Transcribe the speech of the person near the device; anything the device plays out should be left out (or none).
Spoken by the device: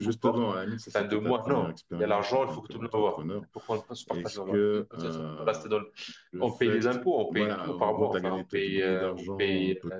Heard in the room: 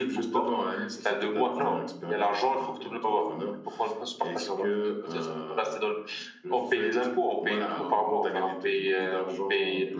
none